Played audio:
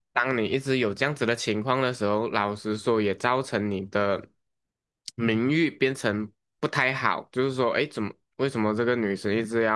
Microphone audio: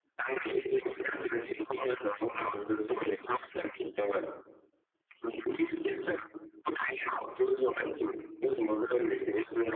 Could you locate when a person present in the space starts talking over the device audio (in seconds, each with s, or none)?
none